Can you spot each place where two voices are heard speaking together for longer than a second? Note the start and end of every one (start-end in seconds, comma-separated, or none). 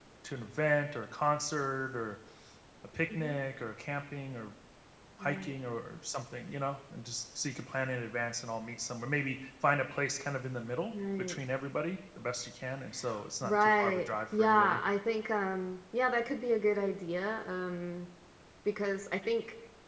13.4-14.8